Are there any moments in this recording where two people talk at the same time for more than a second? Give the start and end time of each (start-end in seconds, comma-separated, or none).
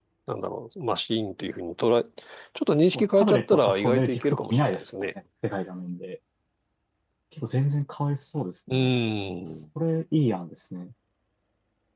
2.7-4.9